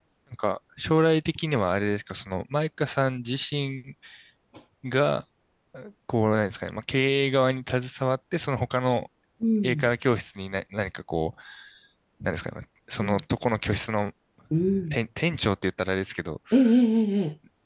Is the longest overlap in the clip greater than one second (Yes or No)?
No